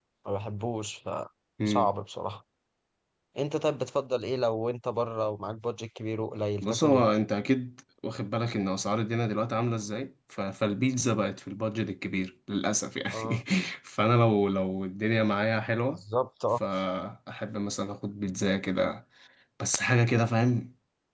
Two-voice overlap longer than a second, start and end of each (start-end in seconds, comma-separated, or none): none